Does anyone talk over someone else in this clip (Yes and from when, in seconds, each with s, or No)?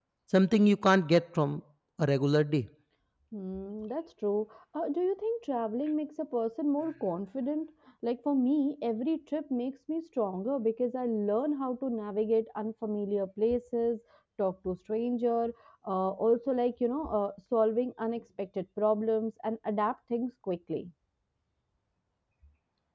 No